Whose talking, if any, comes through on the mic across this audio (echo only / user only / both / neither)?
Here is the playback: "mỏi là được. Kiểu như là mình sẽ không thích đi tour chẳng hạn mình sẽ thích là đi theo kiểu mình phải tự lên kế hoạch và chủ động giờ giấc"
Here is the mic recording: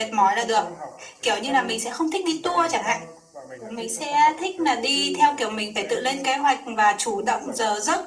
both